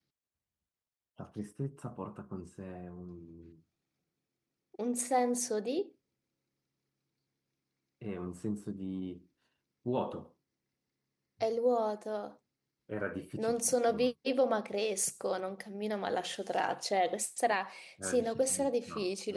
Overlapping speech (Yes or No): Yes